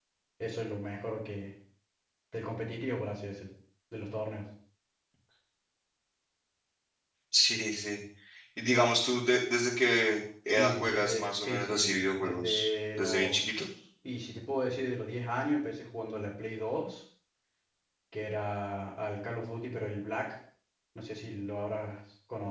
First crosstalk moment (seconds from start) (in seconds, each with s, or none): 10.5 s